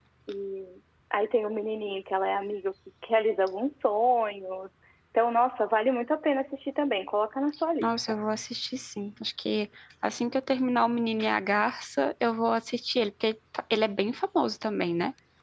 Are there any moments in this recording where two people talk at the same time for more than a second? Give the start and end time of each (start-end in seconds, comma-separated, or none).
none